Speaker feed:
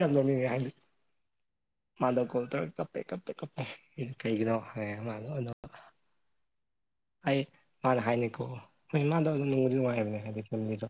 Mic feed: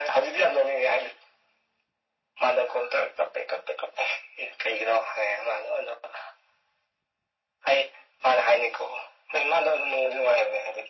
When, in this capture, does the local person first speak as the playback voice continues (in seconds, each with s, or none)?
none